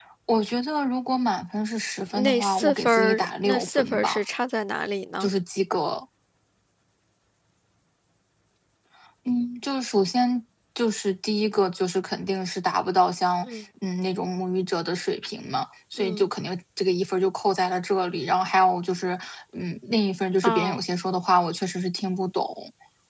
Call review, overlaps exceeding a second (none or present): present